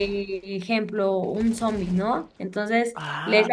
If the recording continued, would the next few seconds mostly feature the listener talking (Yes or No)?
No